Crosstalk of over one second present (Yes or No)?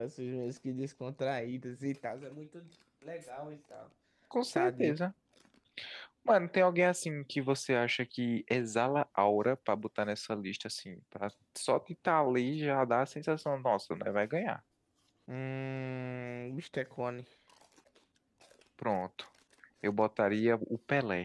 No